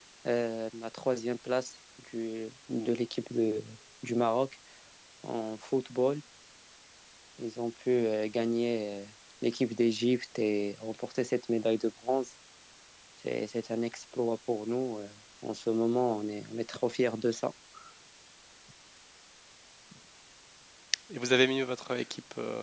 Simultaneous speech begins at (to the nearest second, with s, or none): none